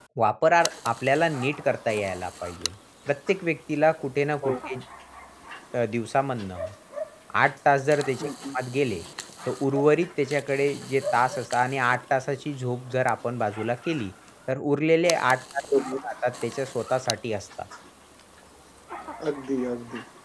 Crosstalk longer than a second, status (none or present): none